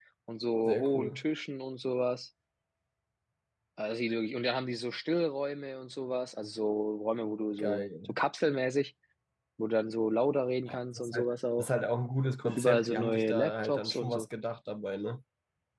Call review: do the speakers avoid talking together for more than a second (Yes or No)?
No